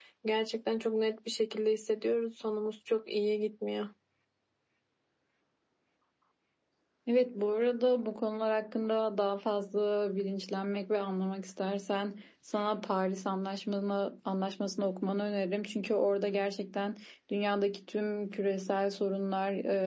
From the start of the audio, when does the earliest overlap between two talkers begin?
none

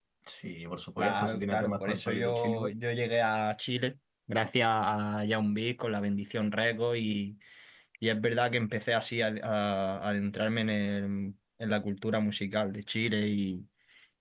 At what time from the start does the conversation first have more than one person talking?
1.0 s

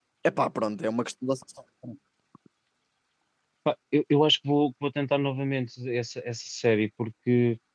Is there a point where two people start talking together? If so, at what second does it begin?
none

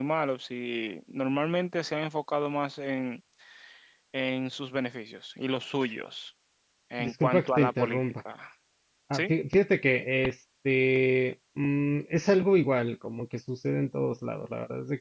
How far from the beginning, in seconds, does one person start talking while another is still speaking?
7.0 s

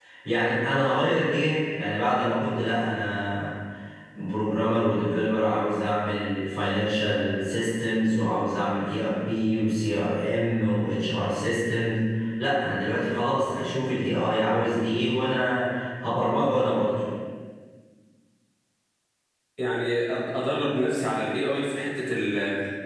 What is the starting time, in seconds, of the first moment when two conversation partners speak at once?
none

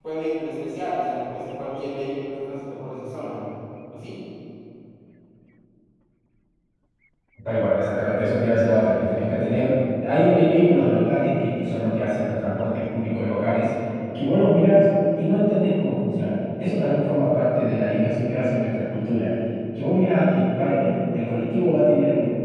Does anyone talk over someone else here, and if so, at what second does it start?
none

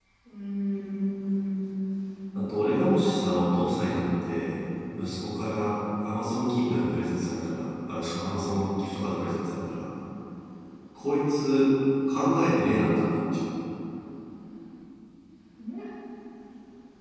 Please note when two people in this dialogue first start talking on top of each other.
none

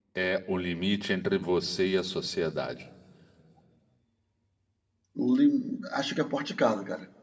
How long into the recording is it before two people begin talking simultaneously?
none

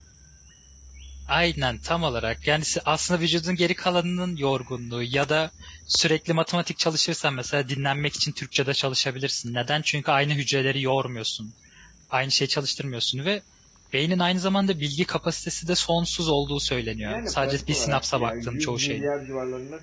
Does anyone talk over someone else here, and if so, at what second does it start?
17.0 s

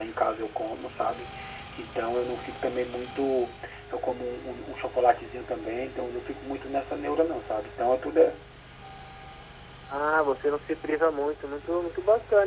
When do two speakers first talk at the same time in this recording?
none

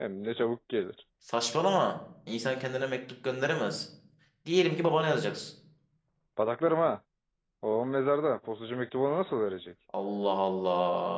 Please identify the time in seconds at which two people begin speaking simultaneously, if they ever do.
none

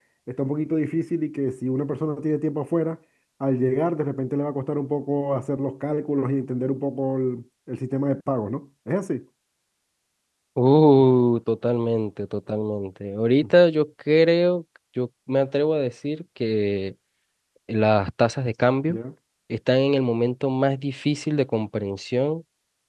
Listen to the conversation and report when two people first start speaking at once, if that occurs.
none

